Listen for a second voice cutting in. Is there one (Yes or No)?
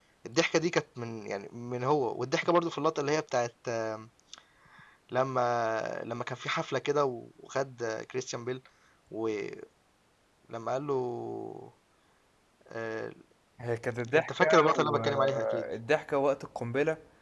Yes